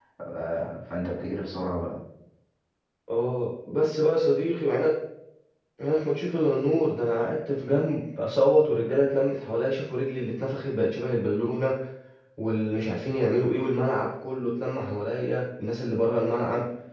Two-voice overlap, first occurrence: none

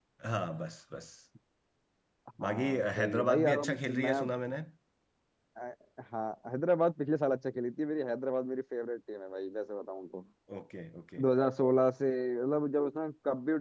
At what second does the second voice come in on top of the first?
2.5 s

